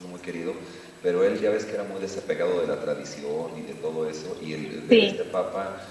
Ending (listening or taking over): listening